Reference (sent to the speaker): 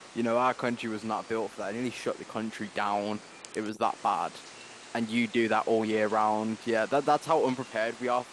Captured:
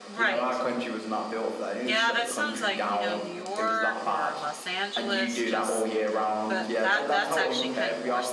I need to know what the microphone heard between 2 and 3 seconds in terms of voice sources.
both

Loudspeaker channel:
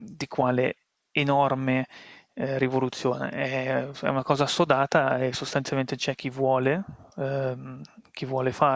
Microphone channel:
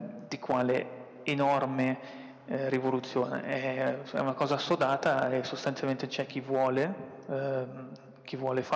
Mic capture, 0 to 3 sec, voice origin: echo only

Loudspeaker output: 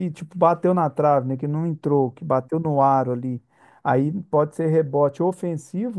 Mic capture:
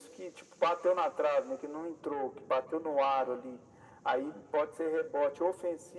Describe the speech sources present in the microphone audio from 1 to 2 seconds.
echo only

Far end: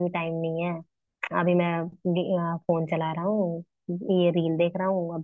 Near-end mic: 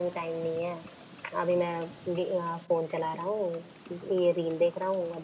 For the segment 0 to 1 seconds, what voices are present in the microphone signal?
echo only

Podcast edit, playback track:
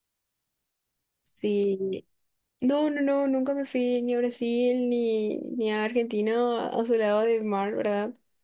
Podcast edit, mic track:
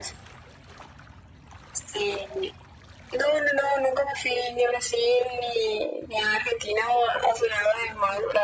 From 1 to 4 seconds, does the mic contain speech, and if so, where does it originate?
echo only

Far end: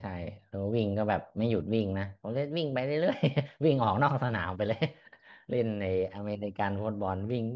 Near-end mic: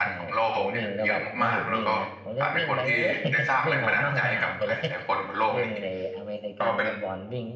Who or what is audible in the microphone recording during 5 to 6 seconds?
both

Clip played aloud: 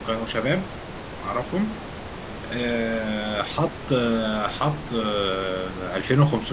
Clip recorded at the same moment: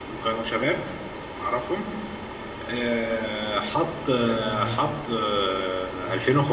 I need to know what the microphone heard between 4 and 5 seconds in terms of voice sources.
both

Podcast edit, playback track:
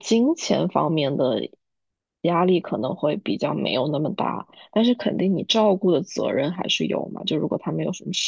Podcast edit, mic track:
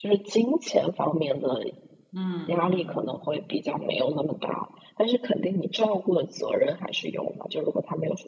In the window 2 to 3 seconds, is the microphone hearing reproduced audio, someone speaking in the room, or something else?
both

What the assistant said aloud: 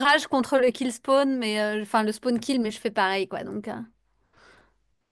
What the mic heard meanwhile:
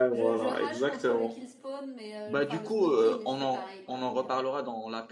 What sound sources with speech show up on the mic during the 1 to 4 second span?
both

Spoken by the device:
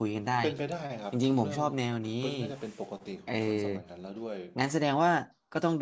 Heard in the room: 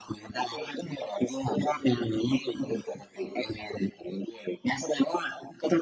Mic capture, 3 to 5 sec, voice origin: echo only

